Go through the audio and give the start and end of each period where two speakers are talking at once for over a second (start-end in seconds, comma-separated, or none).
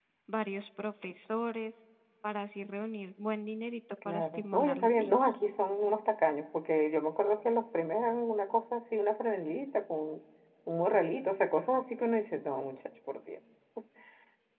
4.0-5.3